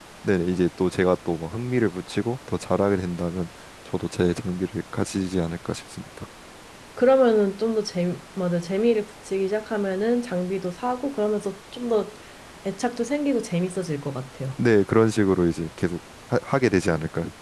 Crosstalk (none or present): none